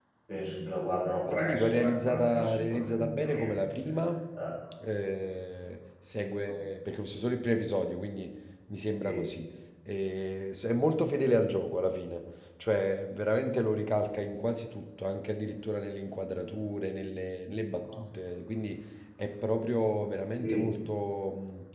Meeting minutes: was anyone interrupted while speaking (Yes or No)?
Yes